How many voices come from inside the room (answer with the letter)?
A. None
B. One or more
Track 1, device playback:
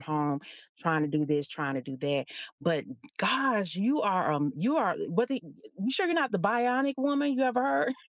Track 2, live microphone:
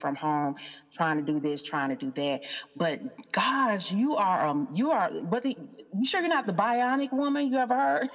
A